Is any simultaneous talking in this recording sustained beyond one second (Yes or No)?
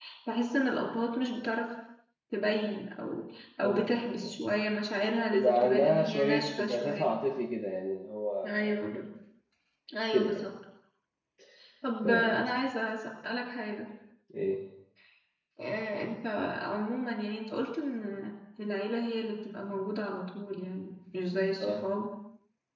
Yes